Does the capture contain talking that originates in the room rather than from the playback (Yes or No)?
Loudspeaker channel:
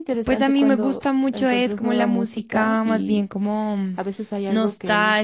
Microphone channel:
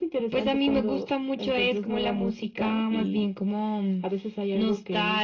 No